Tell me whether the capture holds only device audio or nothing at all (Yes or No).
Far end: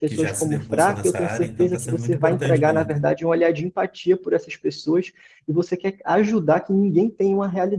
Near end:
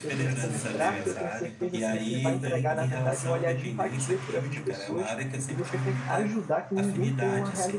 No